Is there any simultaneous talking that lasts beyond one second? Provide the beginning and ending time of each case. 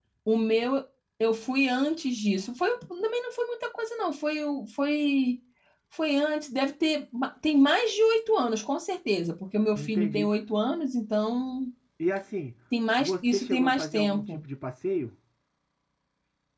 13.0-14.4

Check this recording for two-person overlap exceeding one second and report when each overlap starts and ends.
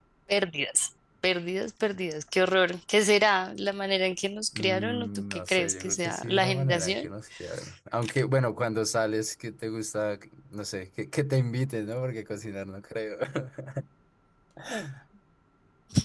4.6-7.1

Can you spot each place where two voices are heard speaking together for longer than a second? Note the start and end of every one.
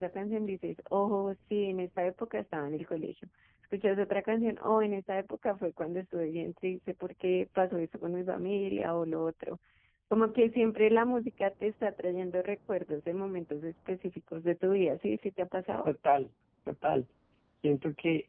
none

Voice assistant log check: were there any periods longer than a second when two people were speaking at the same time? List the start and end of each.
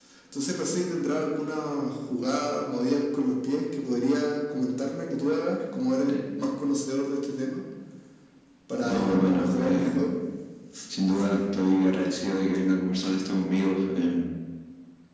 8.8-10.1

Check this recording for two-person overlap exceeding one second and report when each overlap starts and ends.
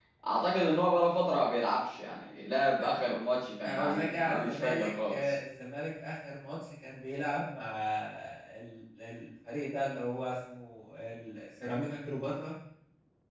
3.6-5.3

